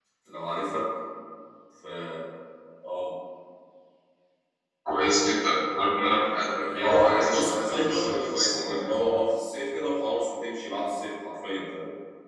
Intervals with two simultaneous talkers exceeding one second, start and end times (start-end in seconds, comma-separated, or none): 6.4-8.8